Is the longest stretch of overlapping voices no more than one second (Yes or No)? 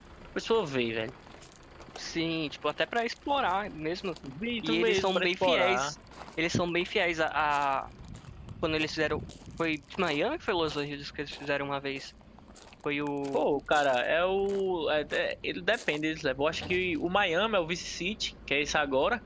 No